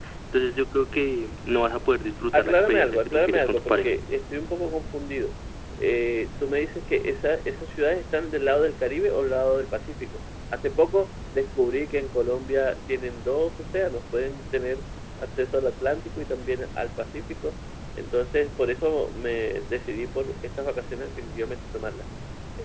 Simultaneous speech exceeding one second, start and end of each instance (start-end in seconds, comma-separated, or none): 2.3-3.9